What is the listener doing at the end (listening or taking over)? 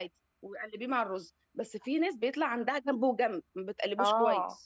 taking over